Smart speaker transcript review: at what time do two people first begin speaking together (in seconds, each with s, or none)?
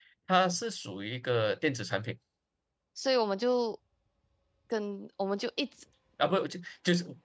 none